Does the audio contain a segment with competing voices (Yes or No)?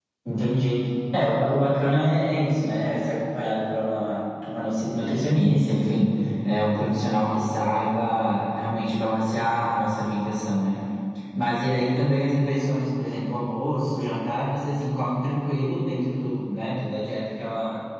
No